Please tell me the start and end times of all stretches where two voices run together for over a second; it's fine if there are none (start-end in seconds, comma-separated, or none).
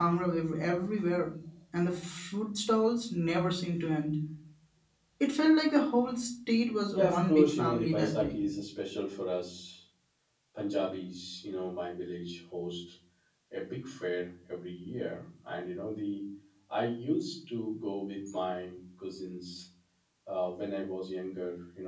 7.0-8.4